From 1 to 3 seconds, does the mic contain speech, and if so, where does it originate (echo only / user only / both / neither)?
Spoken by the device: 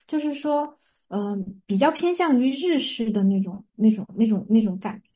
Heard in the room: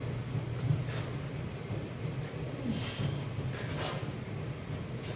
neither